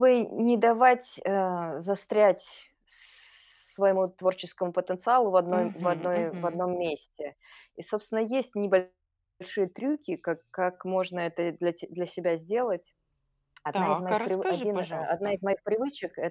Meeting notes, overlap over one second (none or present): present